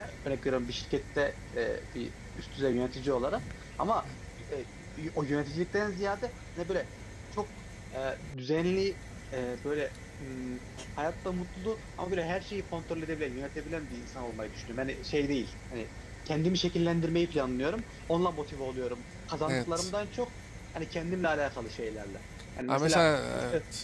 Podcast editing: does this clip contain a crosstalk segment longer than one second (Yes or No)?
No